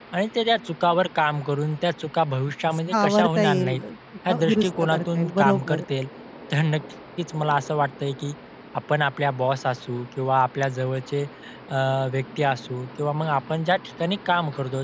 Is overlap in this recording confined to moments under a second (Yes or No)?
No